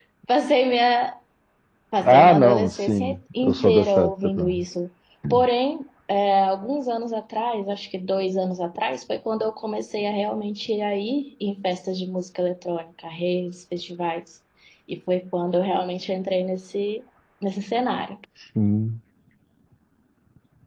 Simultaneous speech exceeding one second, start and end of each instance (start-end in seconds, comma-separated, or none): 2.0-4.6